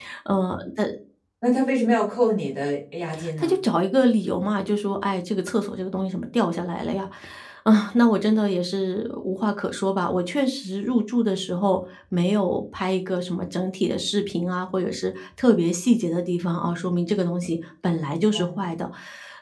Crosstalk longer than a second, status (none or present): none